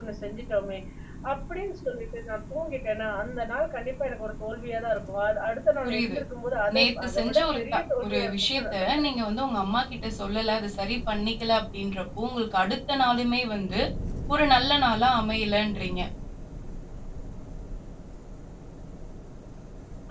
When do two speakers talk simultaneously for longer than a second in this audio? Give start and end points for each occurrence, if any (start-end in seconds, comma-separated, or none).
6.7-9.1